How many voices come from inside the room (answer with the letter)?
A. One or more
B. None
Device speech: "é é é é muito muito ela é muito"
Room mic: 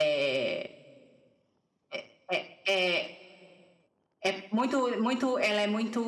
B